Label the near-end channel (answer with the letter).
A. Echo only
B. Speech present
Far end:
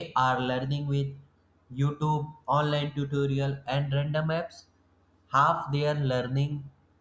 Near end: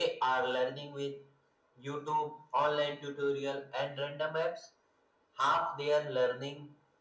A